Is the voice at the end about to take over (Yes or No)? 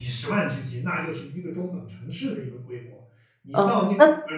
Yes